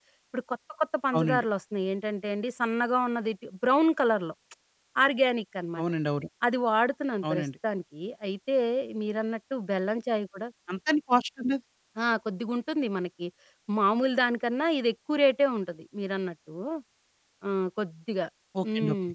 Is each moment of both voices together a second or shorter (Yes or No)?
Yes